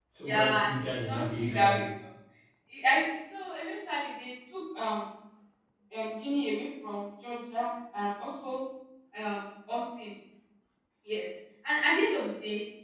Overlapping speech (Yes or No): Yes